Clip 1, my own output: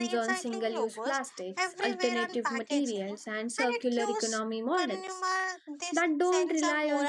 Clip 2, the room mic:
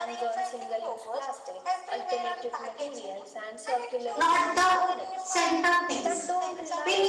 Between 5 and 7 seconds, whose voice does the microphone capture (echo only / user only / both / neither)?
both